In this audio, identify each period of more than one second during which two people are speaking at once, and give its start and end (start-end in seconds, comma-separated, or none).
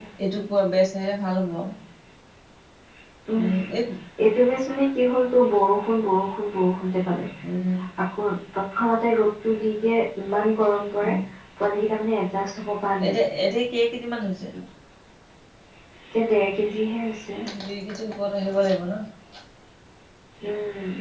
none